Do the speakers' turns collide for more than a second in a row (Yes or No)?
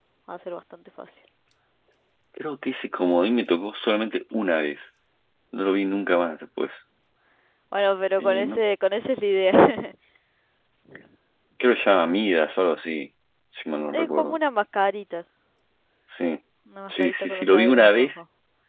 Yes